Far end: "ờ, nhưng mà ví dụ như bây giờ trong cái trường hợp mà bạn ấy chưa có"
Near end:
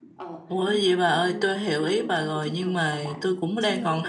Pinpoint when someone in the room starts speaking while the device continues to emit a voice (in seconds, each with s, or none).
0.5 s